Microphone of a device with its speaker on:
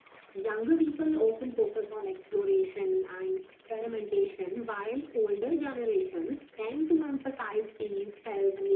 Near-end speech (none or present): none